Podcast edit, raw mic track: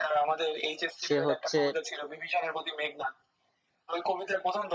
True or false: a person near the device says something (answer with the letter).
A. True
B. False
A